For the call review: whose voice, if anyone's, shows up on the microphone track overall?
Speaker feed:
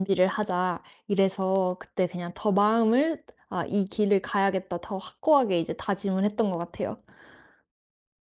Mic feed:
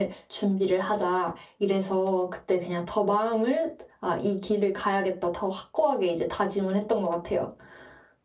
echo only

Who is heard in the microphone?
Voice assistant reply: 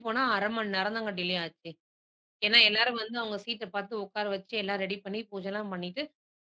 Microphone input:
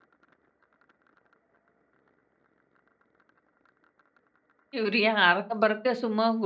user only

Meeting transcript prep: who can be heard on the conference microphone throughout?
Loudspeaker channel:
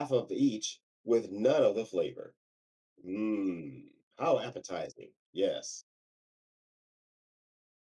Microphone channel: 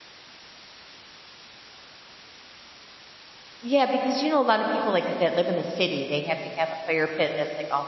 user only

